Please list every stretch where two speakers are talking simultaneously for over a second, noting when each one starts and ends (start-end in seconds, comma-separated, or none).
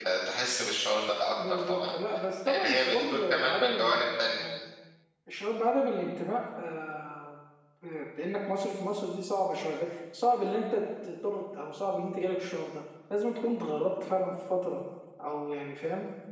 2.5-4.0